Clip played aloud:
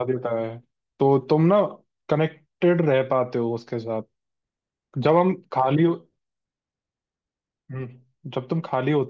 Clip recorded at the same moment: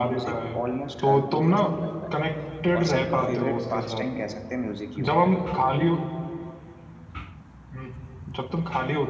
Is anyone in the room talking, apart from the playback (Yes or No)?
Yes